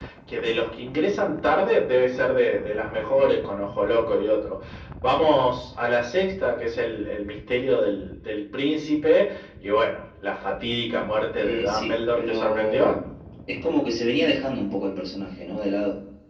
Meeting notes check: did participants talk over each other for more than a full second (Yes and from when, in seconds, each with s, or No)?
Yes, from 11.4 s